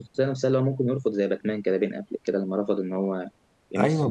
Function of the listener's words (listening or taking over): taking over